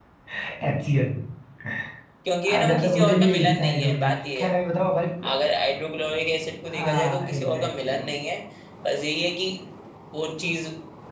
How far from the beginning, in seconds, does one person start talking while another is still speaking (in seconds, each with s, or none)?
2.5 s